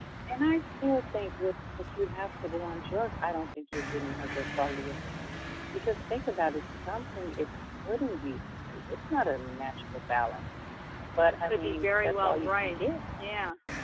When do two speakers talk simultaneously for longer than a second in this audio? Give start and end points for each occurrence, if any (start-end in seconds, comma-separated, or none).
11.2-12.9